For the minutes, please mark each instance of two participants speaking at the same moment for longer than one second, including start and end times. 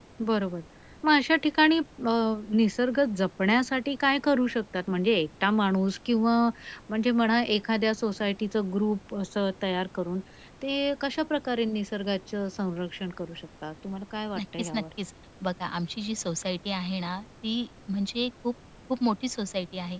none

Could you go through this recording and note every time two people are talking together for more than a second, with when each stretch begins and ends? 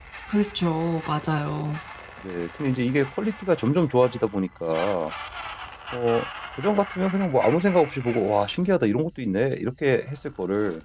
none

